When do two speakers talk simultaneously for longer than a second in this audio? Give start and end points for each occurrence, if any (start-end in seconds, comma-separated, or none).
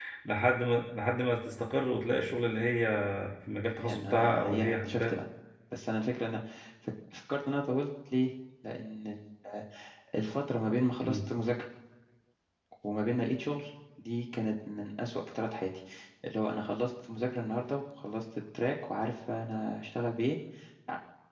3.8-5.1